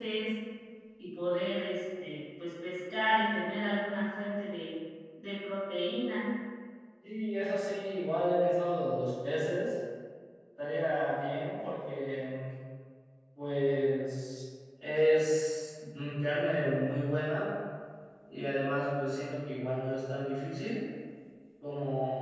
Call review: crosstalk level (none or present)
none